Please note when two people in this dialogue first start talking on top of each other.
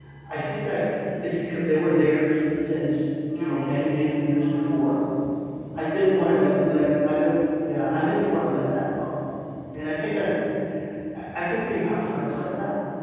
3.3 s

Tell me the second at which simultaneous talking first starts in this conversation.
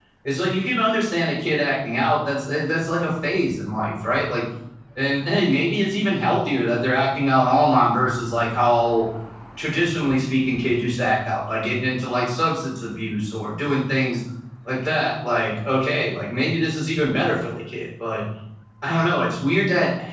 none

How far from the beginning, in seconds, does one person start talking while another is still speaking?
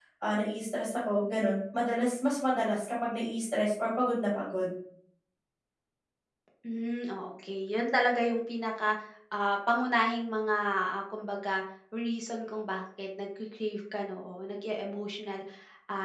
none

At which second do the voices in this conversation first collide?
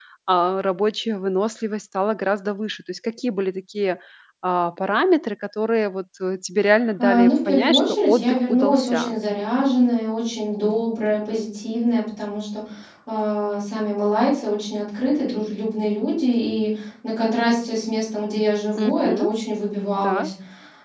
7.0 s

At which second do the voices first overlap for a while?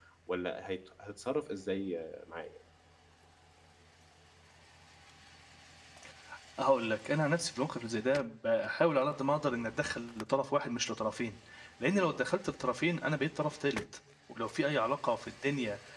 none

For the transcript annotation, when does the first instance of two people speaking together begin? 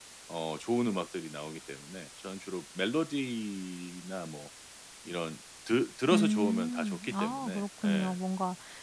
6.1 s

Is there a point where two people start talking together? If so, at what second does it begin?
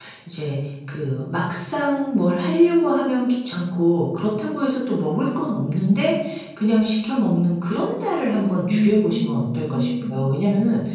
8.5 s

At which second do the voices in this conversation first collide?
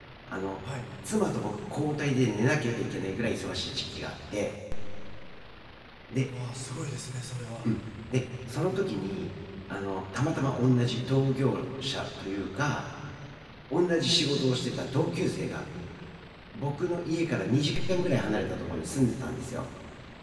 none

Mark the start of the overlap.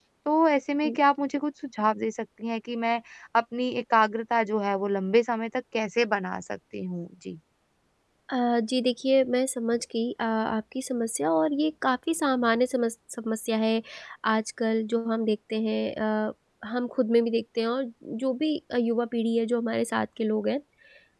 none

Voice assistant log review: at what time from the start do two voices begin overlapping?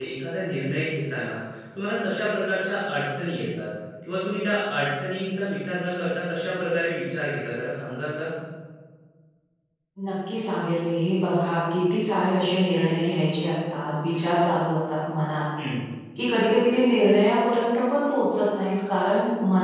none

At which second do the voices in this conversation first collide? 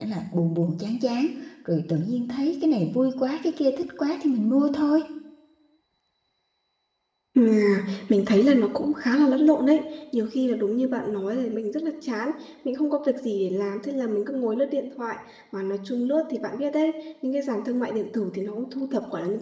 none

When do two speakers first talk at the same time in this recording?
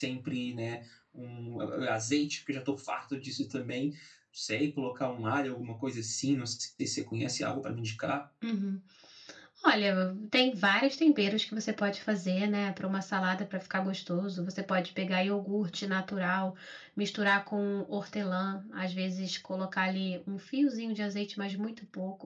none

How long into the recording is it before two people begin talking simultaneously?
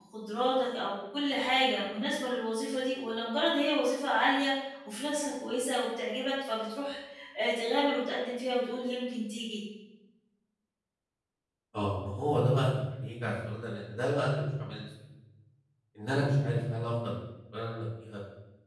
none

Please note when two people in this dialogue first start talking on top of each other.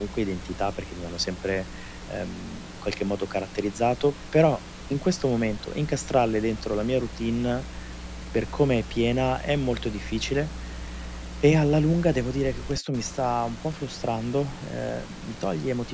none

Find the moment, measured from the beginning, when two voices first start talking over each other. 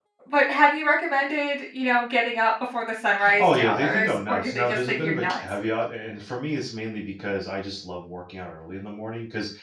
3.2 s

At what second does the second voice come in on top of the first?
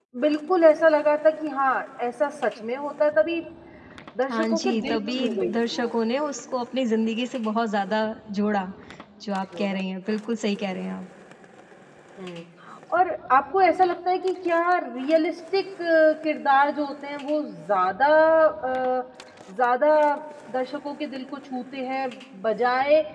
4.3 s

